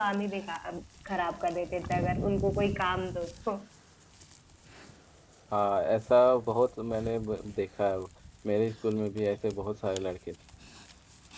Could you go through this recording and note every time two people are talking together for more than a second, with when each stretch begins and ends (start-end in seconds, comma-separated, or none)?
none